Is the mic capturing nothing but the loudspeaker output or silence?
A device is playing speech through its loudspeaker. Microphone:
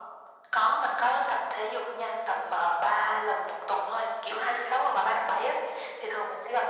Yes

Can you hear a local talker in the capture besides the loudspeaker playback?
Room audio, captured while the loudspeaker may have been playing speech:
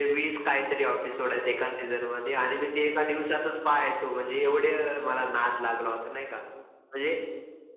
No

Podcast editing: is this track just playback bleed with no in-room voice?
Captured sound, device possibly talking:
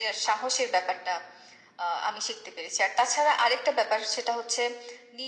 Yes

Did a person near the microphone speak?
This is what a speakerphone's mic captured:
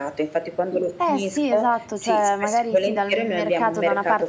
Yes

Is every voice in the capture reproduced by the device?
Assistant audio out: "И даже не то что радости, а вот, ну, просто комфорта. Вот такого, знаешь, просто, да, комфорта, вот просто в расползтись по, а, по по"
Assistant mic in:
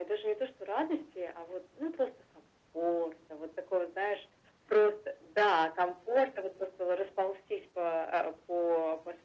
Yes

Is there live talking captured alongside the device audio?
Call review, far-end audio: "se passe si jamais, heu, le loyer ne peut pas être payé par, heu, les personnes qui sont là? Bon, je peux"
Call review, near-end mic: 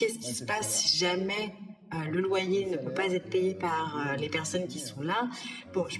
Yes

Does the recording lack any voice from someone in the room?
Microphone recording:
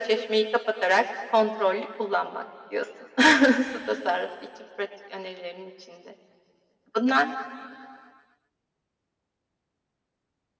Yes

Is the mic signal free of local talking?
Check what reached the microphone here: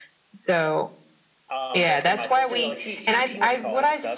No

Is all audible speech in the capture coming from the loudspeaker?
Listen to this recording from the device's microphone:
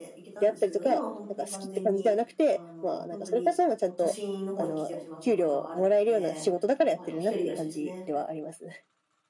No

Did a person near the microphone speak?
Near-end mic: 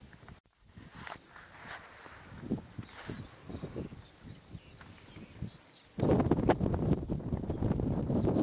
No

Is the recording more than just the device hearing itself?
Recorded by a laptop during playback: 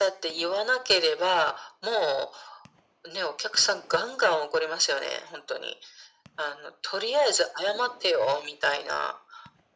No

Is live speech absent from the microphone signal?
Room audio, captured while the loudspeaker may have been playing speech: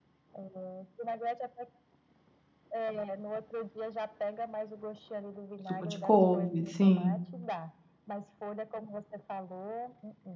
No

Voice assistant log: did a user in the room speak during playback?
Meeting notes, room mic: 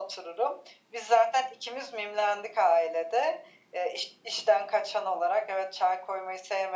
No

